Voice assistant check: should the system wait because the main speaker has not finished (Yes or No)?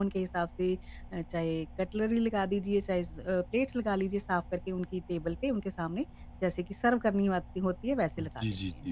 No